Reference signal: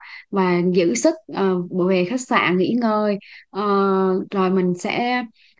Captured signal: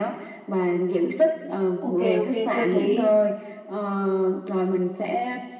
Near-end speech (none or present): present